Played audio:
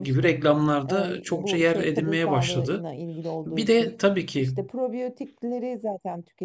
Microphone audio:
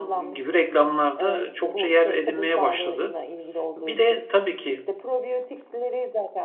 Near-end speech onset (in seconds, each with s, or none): none